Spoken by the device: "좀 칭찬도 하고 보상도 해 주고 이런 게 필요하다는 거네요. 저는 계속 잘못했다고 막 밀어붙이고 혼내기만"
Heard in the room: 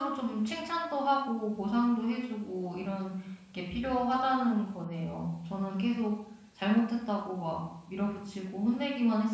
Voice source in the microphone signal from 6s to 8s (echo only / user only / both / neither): echo only